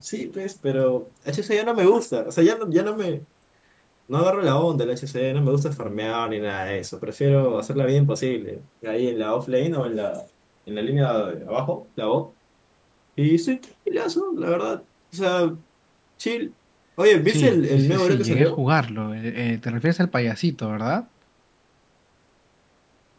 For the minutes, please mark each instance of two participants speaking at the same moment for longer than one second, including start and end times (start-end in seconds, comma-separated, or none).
17.3-18.6